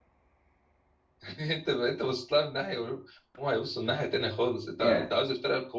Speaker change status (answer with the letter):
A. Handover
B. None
B